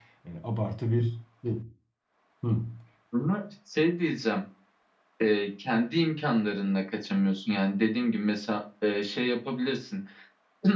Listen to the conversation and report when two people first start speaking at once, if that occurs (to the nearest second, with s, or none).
none